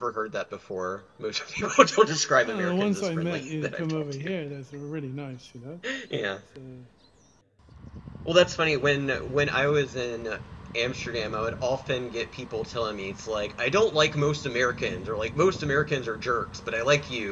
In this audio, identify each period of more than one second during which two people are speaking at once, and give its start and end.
2.4-4.3

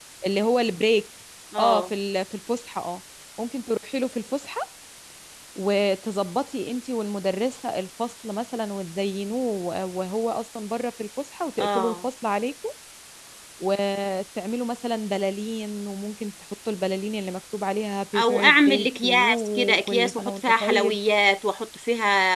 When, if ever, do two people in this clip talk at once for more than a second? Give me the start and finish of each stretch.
18.2-21.0

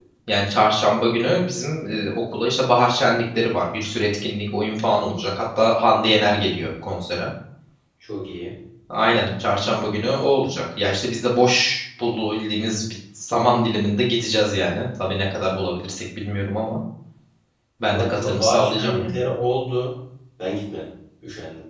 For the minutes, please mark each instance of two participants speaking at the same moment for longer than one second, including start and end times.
17.9-19.2

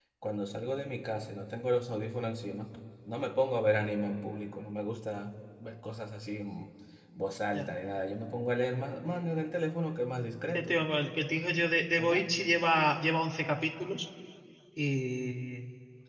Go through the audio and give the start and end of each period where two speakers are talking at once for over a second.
none

